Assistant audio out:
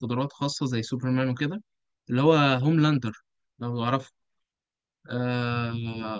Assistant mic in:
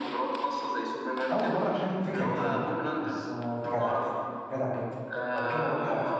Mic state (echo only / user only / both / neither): both